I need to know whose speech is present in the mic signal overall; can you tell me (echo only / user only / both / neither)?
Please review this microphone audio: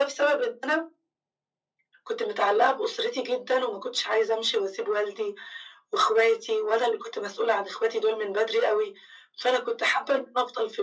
echo only